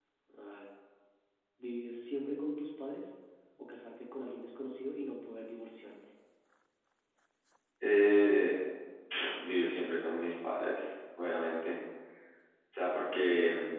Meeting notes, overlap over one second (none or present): none